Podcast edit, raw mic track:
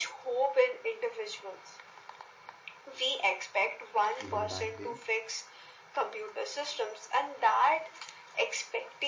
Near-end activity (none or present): present